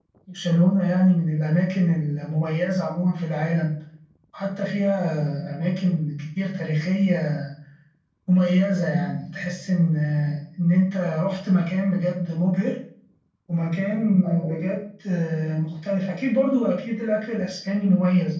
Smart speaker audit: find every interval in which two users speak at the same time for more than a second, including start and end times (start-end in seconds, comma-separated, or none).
none